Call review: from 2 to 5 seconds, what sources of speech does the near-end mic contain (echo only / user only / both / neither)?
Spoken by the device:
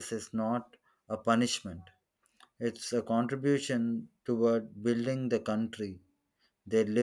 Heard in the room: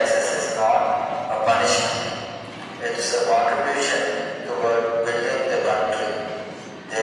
echo only